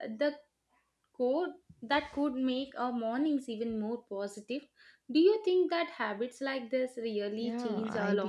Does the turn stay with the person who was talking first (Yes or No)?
No